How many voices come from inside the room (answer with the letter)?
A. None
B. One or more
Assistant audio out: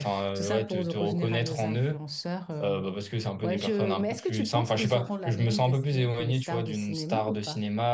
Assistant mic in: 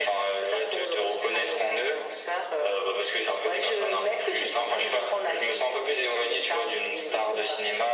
A